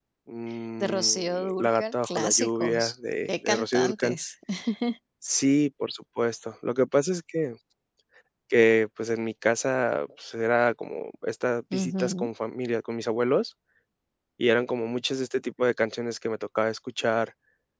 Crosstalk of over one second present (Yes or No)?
Yes